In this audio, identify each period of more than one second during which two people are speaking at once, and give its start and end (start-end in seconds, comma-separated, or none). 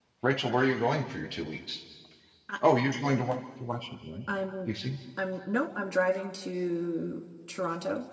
none